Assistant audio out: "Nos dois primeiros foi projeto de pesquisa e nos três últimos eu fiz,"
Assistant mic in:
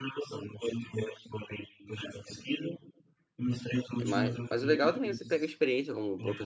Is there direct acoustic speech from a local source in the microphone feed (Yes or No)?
Yes